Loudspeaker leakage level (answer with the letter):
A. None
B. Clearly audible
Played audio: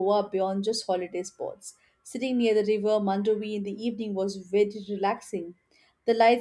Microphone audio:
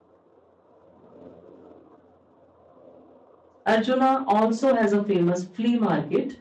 A